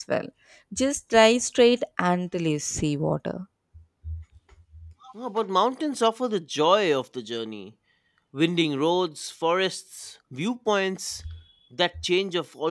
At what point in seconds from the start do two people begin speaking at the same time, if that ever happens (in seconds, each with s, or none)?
none